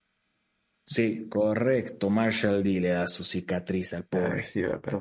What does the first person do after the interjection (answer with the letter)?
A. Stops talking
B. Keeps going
A